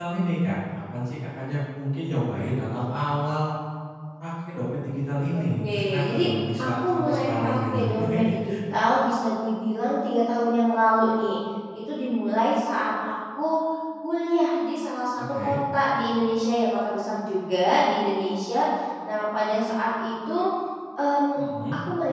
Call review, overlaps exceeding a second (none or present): present